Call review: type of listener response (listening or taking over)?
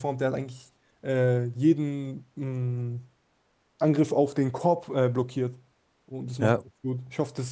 listening